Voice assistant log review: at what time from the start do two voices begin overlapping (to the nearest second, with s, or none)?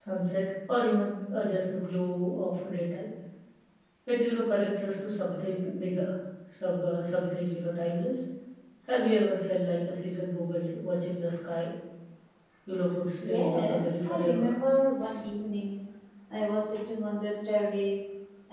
13 s